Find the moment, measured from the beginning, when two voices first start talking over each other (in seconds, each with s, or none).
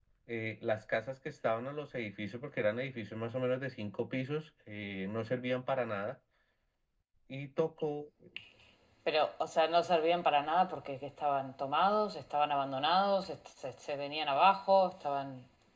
none